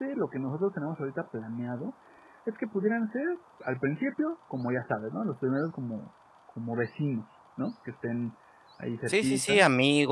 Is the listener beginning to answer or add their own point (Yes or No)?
Yes